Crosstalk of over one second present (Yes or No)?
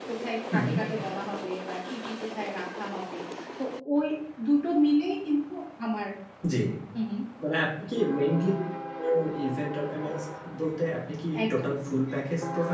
No